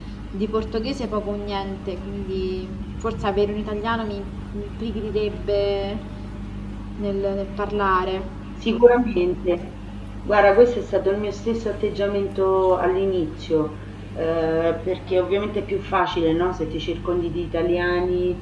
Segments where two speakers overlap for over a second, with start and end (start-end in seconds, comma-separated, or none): none